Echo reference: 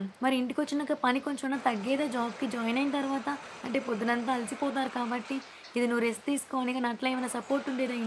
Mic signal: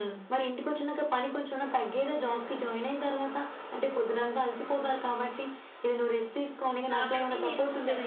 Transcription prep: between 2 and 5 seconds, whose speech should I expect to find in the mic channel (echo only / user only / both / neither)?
echo only